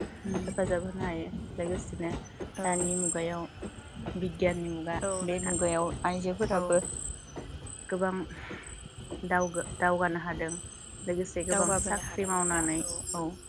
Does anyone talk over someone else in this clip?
Yes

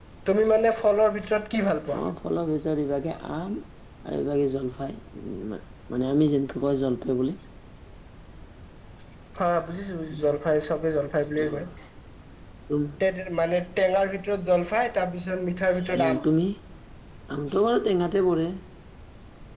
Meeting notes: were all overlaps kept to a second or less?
Yes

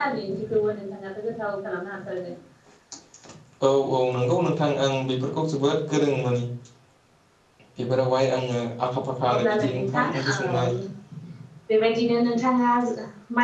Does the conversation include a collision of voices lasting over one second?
Yes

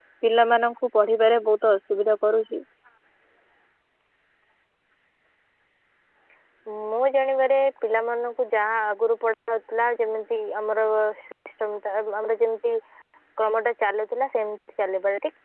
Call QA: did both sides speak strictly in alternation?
Yes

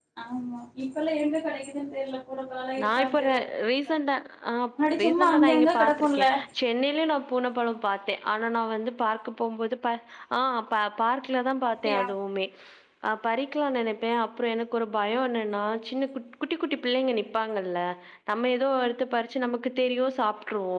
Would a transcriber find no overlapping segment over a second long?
No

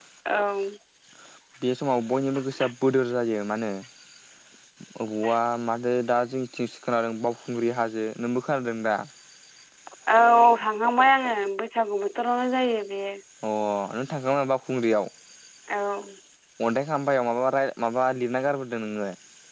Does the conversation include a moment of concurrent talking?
No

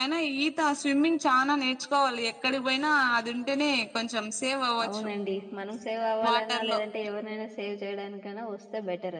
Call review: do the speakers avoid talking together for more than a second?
Yes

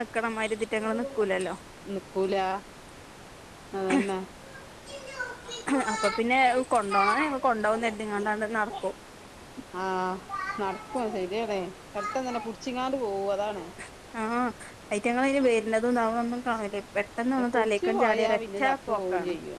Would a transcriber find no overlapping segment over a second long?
No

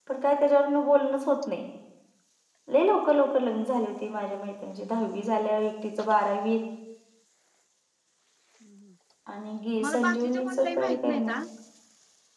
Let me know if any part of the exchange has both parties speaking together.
Yes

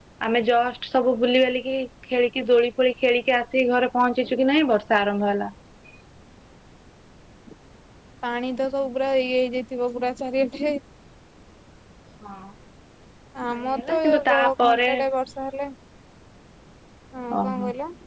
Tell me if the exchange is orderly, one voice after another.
No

